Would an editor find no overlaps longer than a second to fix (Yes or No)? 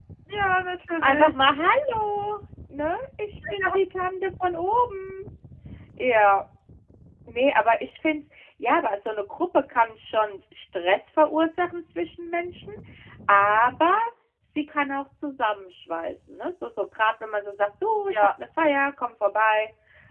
Yes